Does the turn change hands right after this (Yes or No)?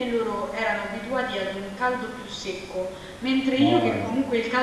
No